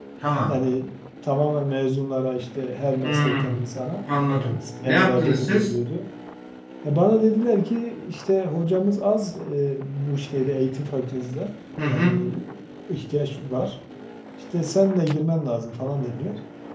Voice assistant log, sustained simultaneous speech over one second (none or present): present